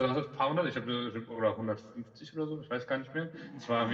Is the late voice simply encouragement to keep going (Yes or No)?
Yes